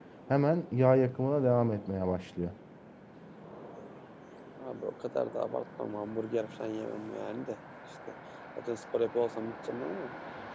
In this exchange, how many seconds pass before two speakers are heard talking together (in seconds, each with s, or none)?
none